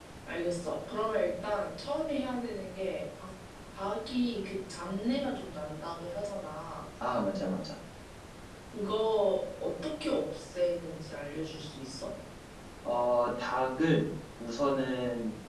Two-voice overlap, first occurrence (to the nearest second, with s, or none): none